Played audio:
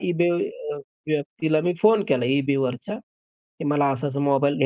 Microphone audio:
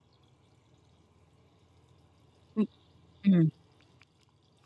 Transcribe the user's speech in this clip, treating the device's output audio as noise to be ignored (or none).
हं, हं.